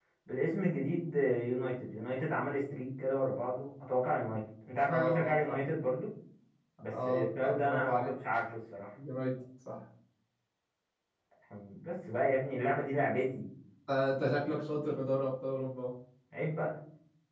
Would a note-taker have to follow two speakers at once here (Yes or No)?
Yes